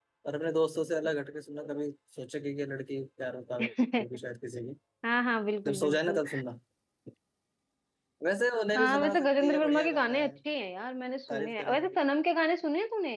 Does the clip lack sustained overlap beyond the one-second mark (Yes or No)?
No